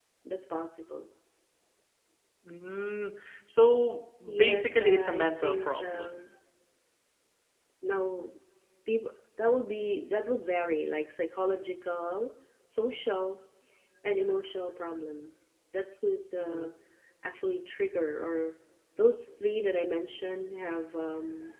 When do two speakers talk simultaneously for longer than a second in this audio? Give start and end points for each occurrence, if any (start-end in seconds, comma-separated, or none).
4.3-6.1